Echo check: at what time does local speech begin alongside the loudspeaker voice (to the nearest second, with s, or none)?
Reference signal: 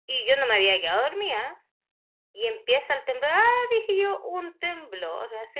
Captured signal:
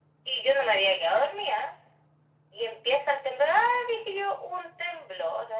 none